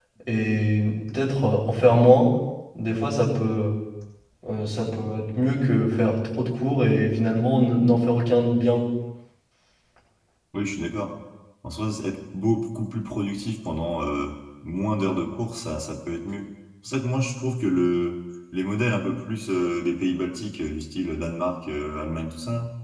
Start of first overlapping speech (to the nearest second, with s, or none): none